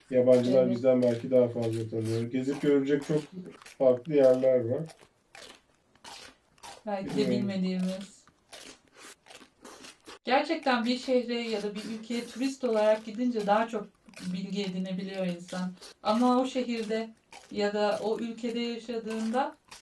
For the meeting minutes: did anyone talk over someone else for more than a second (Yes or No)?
No